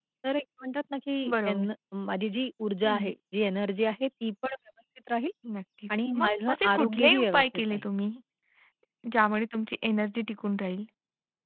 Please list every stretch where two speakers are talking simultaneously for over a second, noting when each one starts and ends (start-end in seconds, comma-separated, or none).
6.1-7.9